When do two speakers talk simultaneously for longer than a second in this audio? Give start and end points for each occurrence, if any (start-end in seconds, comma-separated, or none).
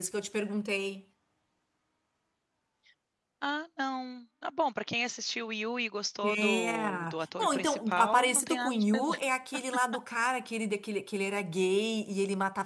6.2-9.2